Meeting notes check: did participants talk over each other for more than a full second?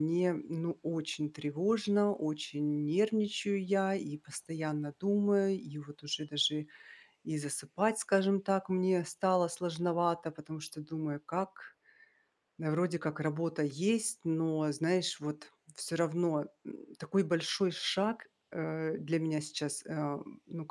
No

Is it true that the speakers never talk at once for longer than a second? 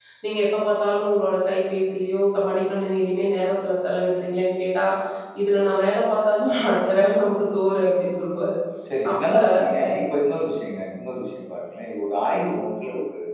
Yes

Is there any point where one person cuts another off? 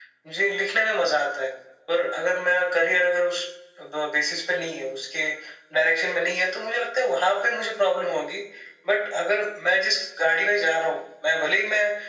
No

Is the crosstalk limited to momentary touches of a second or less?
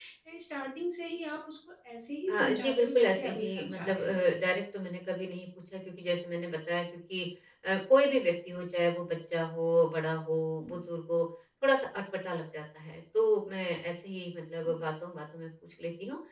No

